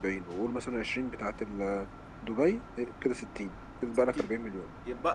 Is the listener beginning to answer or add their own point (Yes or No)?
Yes